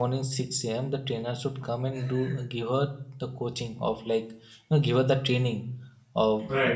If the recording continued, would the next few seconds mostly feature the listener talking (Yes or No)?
No